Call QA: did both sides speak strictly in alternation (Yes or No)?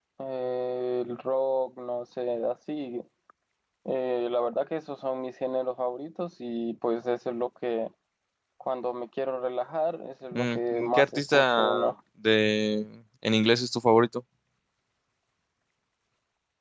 No